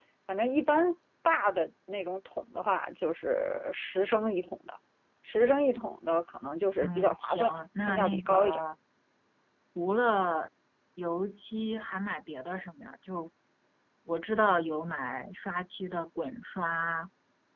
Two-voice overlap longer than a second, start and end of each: 6.8-8.6

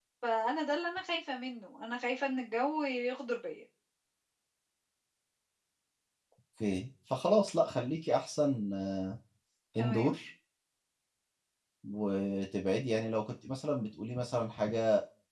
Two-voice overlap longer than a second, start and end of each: none

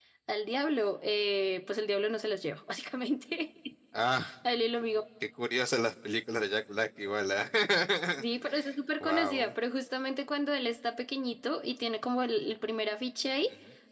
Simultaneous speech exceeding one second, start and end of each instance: none

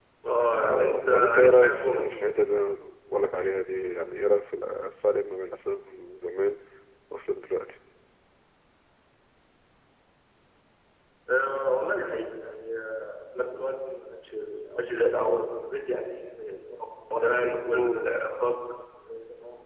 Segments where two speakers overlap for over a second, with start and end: 0.6-2.1

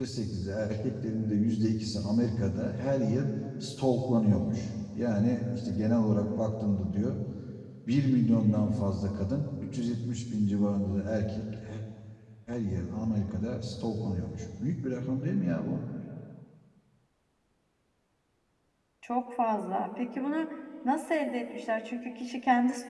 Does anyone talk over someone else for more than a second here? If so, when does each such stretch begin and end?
none

